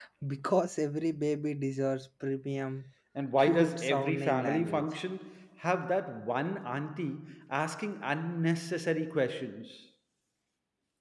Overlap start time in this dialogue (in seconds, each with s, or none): 3.4 s